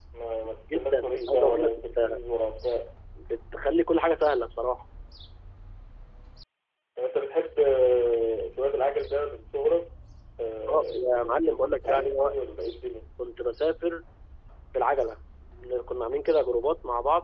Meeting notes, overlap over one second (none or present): present